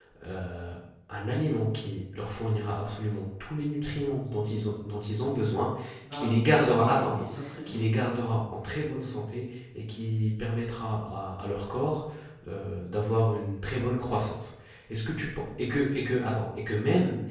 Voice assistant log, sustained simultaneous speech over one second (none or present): present